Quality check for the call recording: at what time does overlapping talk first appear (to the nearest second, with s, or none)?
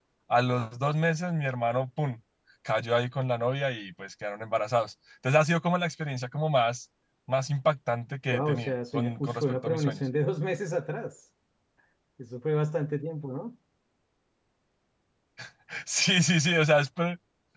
8 s